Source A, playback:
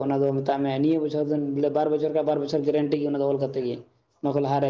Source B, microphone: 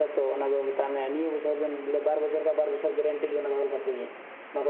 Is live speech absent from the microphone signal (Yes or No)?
Yes